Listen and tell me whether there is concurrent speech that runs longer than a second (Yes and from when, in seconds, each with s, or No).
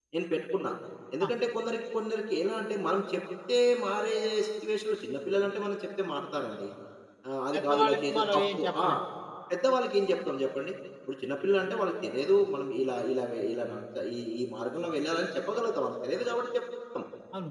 Yes, from 7.5 s